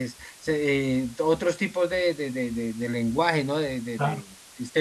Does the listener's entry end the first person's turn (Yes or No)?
Yes